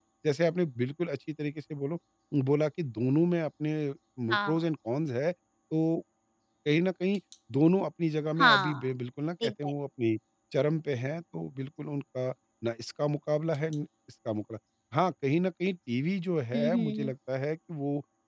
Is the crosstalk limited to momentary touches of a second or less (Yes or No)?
Yes